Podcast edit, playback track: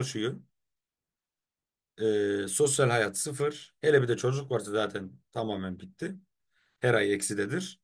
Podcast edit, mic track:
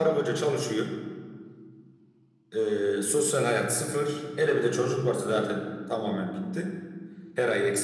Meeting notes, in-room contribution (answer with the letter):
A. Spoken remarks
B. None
B